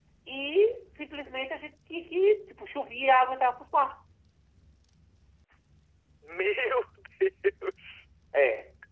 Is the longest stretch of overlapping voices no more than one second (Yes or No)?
Yes